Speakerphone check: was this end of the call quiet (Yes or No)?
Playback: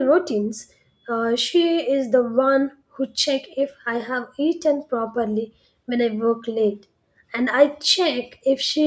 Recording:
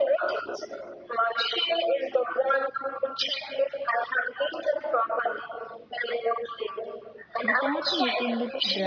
No